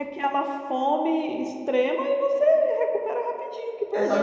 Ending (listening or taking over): taking over